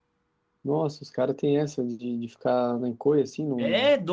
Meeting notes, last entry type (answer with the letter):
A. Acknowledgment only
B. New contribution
B